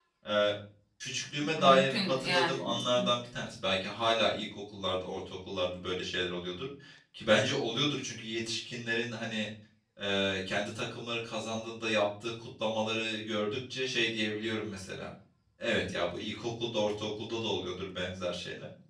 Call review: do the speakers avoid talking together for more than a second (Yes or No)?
No